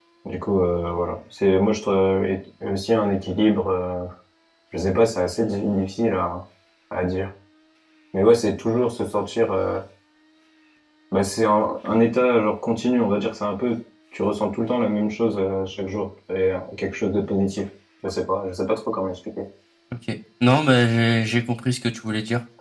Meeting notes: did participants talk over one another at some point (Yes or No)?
No